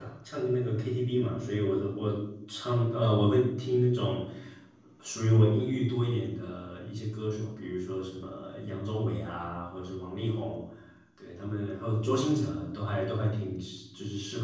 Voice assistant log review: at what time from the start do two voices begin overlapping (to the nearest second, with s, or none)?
none